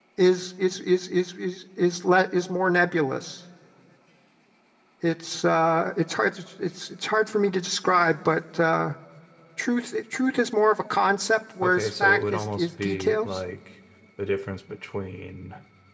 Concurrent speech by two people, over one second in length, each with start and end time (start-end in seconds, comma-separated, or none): 11.6-13.3